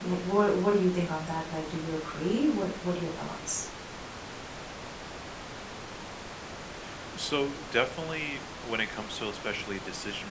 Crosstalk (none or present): none